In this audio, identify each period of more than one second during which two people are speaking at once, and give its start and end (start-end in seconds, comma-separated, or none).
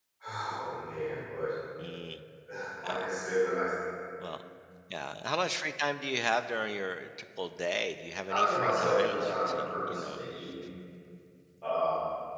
8.3-10.2